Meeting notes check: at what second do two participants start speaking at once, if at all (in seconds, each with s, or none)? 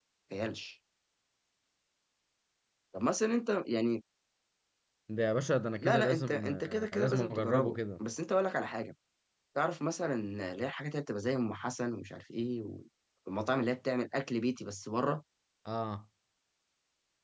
5.8 s